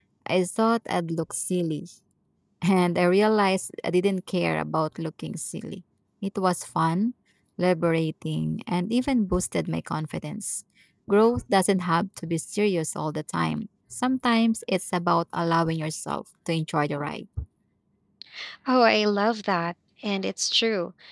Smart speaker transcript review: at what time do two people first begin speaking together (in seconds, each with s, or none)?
none